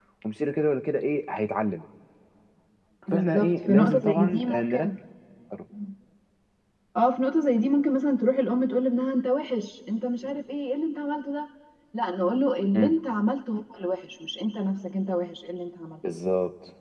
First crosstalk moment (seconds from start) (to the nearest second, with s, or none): 3 s